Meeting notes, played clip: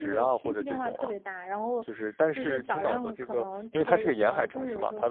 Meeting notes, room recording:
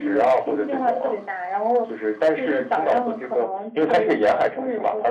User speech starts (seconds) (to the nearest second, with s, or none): none